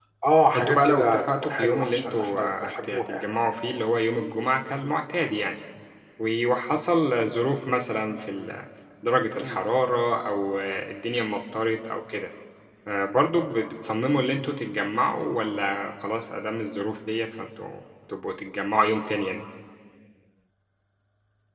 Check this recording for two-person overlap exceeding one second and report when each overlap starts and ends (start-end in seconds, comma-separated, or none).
0.5-3.3